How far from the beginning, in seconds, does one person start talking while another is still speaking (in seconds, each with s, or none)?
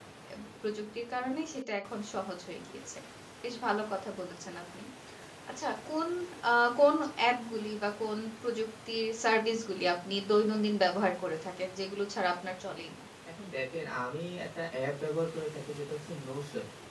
none